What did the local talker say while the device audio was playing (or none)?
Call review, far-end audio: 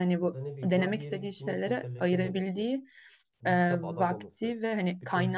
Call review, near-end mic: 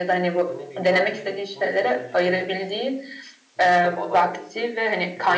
none